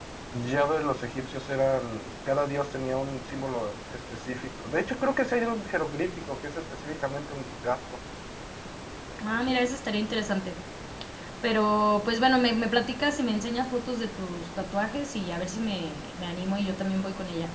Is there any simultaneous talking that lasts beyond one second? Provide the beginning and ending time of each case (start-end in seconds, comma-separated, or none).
none